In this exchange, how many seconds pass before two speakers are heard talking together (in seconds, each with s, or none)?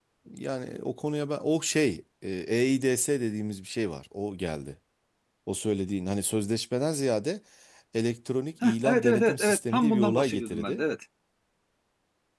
8.6 s